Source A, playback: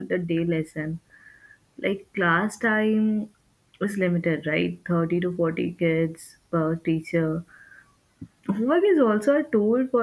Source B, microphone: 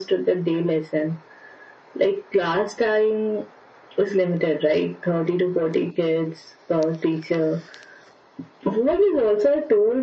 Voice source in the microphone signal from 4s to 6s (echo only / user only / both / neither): echo only